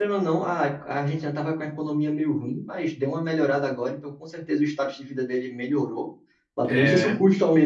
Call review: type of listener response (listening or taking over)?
listening